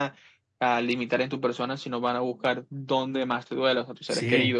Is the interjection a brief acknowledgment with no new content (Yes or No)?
No